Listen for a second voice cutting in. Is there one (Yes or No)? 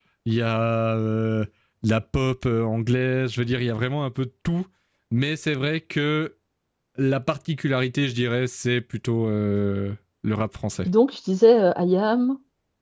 No